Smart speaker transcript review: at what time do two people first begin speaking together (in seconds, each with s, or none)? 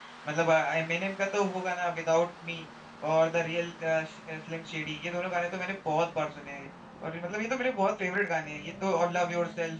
none